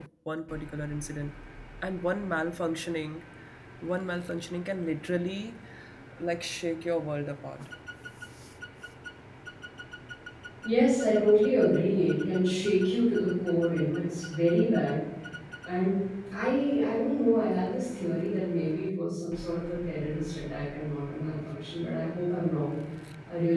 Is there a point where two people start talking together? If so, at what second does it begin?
none

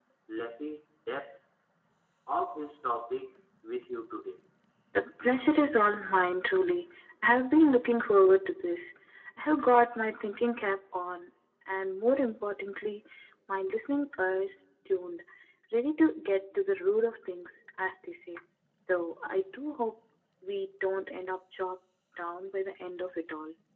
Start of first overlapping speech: none

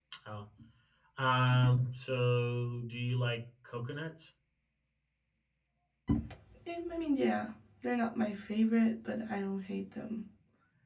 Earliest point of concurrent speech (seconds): none

